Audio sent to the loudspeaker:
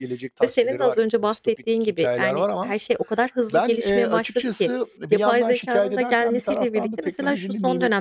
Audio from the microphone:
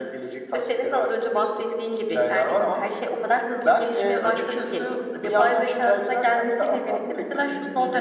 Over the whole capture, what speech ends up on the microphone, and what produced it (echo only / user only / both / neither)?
echo only